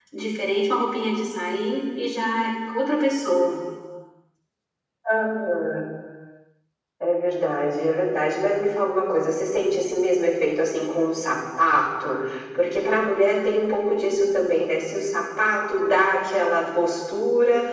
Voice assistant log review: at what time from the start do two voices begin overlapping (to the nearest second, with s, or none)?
none